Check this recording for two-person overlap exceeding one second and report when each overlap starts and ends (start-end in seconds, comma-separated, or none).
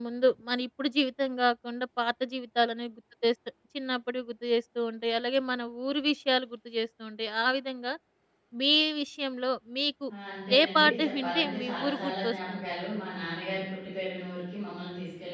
10.6-12.7